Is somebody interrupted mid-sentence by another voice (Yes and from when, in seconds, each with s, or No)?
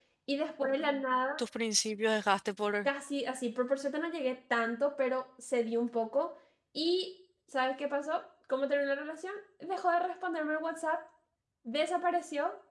No